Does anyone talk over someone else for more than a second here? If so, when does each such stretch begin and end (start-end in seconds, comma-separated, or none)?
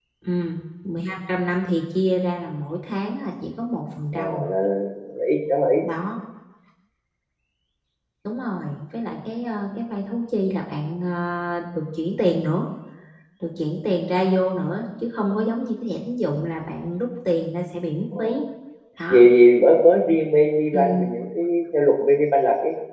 none